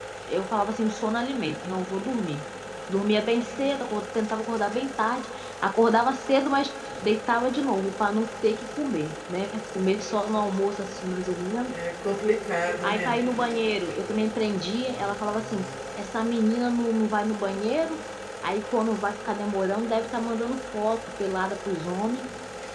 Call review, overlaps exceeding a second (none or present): none